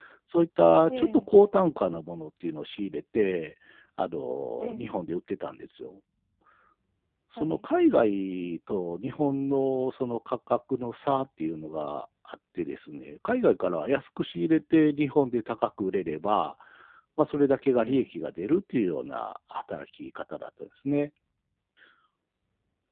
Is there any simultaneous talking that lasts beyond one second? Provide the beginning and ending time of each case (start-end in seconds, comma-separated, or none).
none